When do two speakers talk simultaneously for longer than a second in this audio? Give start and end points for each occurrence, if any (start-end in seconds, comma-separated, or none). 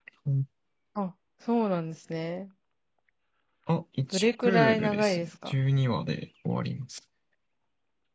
4.1-5.6